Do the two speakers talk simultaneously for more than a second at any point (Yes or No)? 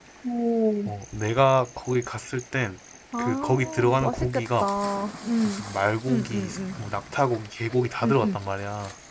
Yes